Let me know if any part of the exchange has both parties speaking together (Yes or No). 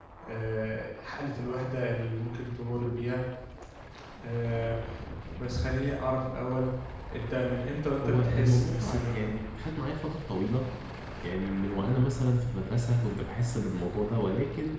Yes